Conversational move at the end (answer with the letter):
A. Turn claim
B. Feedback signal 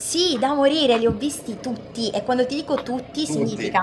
B